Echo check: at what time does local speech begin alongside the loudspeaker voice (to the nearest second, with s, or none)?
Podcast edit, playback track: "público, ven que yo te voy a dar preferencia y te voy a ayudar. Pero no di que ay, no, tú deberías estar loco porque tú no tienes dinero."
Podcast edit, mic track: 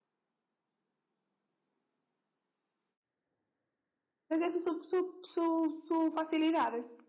4 s